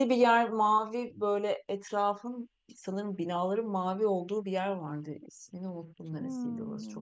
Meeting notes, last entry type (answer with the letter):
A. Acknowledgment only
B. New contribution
B